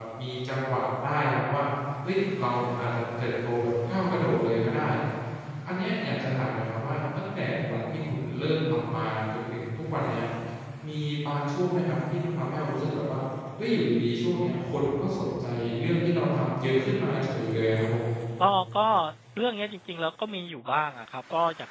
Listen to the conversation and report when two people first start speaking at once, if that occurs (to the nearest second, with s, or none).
none